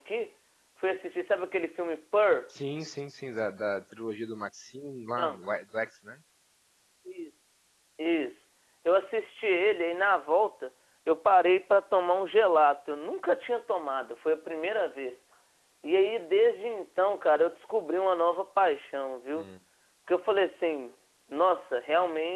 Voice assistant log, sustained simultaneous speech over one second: none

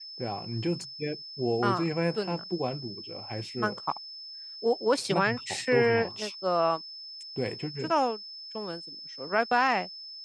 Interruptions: present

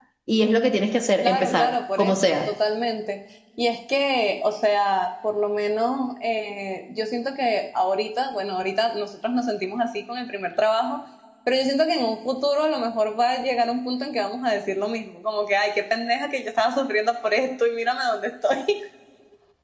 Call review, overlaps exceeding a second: present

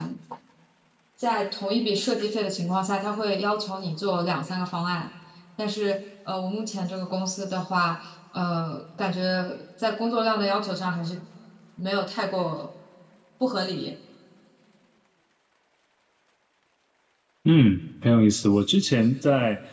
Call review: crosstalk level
none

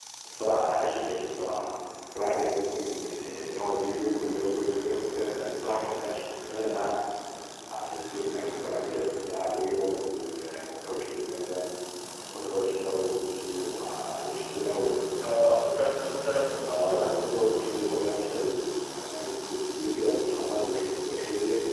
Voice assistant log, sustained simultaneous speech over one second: present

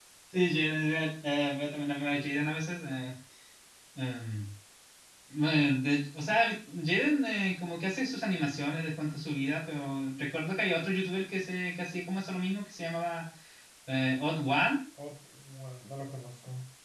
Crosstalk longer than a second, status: none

